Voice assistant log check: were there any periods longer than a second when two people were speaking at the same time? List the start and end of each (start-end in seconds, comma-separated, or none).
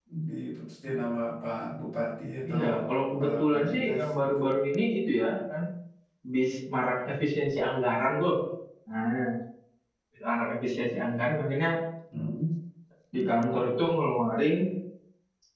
3.2-4.4